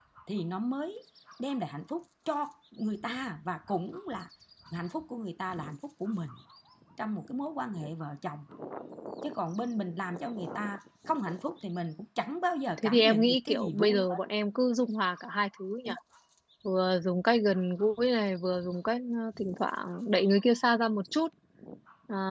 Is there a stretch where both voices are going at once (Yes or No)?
Yes